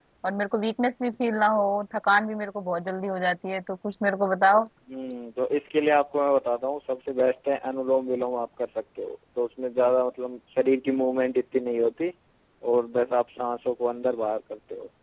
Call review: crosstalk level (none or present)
none